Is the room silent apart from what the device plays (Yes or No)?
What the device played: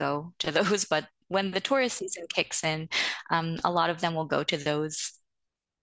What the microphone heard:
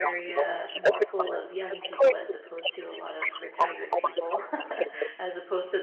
No